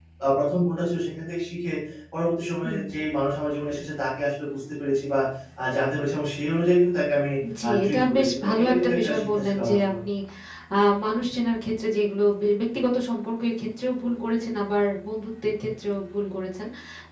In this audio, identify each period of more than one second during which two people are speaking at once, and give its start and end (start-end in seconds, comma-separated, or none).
7.7-9.9